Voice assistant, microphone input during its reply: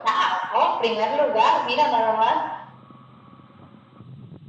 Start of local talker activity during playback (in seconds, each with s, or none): none